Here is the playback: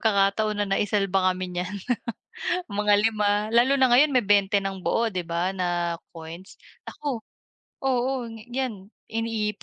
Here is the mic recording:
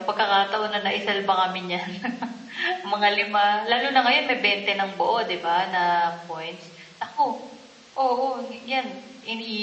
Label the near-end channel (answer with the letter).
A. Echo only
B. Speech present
A